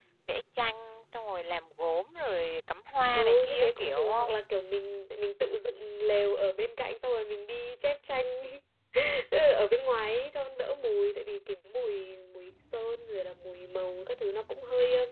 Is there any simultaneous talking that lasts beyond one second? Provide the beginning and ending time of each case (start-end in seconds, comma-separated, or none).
3.1-4.3